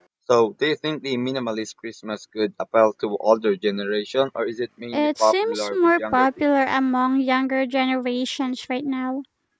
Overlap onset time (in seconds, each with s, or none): 4.9 s